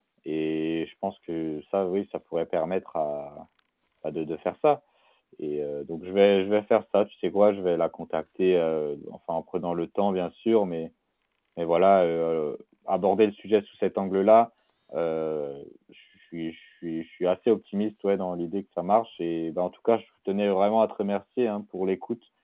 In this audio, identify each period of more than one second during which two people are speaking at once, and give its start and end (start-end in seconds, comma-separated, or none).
none